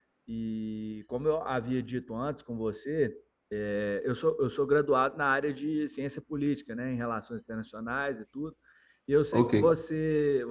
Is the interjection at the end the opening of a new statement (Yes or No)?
No